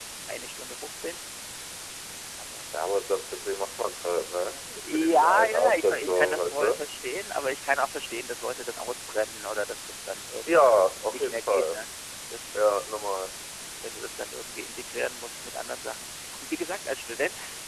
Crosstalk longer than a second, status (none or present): present